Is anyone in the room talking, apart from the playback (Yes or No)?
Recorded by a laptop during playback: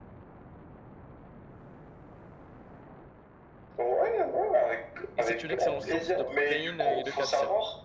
Yes